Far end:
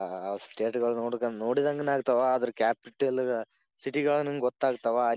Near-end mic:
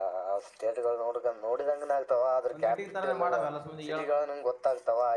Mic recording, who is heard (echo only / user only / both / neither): both